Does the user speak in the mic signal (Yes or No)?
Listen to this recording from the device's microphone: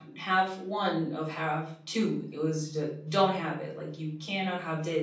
Yes